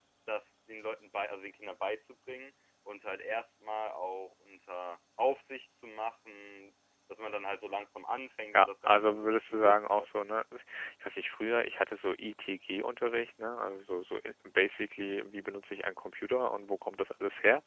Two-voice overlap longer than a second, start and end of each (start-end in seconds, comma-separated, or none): 8.5-10.1